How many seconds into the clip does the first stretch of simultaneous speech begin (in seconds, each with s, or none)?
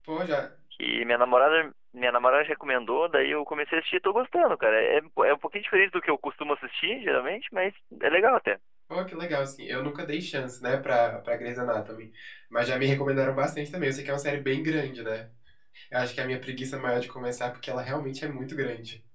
none